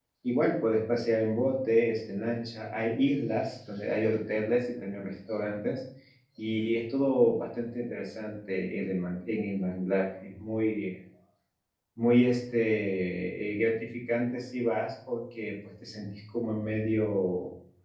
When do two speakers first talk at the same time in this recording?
none

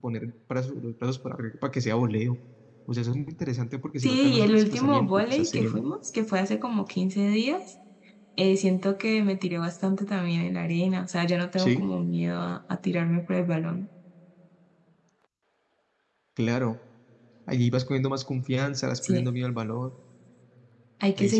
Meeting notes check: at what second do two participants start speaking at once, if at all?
4.0 s

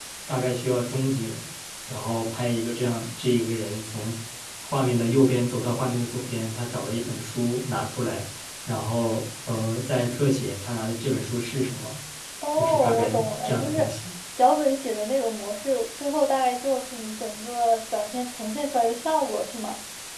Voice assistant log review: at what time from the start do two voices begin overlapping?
12.5 s

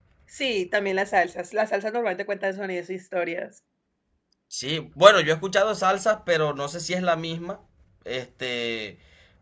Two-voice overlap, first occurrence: none

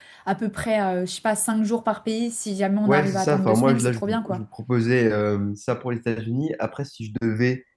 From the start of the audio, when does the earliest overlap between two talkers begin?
2.9 s

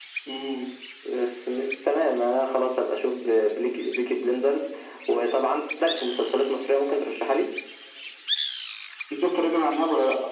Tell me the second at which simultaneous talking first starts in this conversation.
none

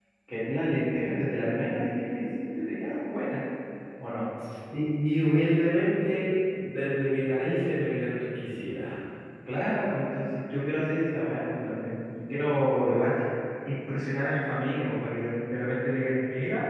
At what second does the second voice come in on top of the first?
none

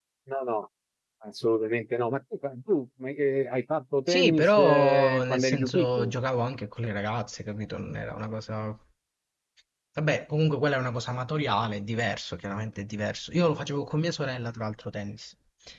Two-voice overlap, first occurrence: 4.1 s

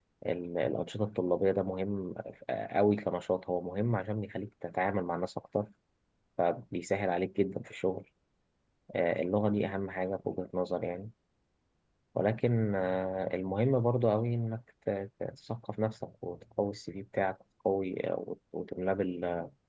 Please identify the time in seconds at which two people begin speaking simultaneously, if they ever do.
none

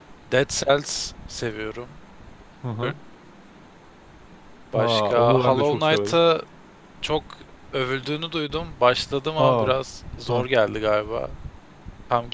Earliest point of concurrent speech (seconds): 4.7 s

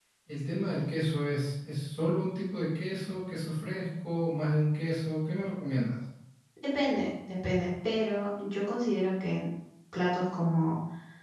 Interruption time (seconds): none

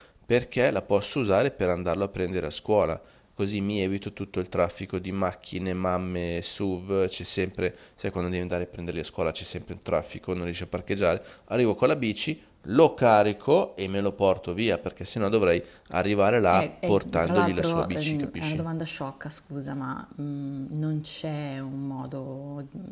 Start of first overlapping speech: 16.5 s

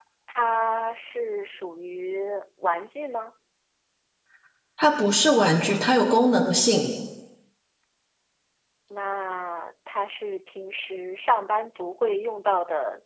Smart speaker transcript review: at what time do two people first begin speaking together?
none

